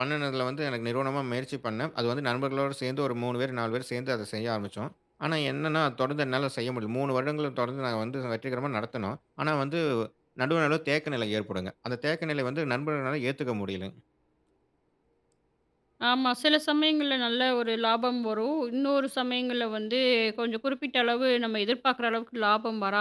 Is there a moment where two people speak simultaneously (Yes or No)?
No